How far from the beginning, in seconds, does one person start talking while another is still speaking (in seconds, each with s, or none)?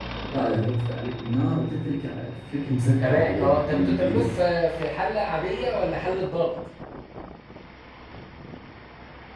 3.0 s